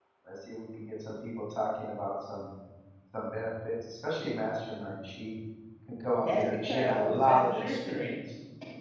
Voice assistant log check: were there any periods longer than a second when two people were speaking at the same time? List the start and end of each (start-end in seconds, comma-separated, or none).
6.2-8.1